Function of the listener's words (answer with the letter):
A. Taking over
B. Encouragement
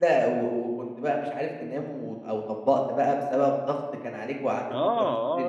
A